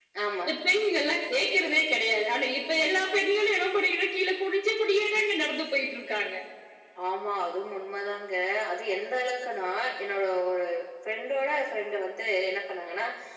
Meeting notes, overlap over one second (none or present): none